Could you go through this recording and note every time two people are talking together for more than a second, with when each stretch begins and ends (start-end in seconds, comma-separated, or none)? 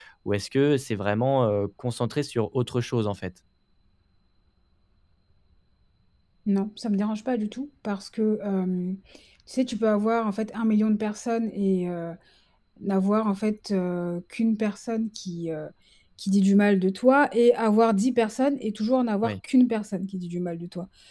none